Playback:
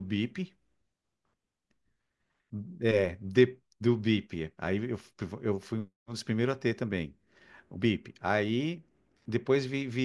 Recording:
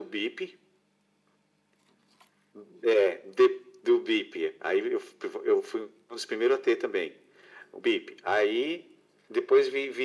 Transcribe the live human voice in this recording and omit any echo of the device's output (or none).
none